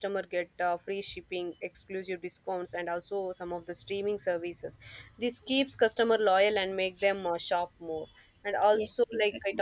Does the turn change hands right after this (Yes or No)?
No